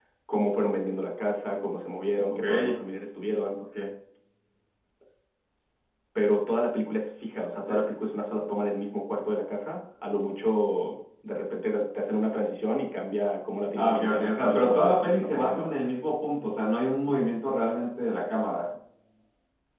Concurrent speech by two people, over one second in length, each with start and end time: 13.8-15.7

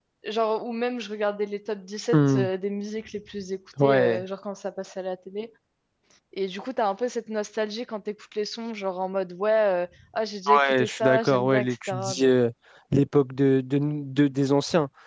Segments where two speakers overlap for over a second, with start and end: 10.6-12.3

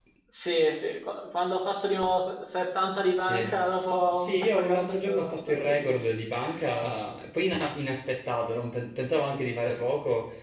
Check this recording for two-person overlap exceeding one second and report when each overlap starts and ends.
4.1-6.1

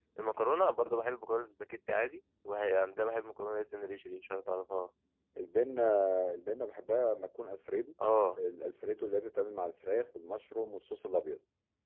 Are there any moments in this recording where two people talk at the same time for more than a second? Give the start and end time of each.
none

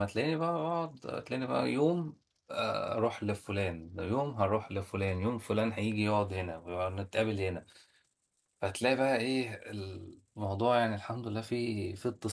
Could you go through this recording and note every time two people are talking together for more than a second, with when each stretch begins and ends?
none

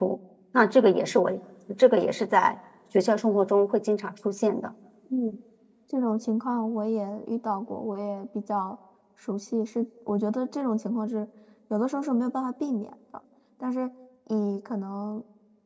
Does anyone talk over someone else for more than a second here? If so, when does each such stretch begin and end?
none

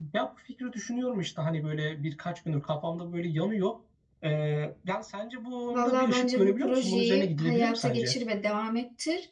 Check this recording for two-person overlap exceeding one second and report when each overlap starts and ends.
5.7-8.1

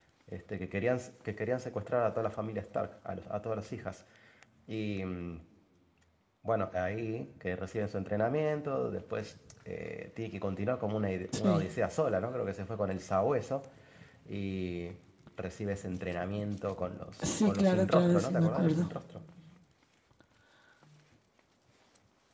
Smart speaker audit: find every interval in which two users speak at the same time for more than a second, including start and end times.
17.2-18.9

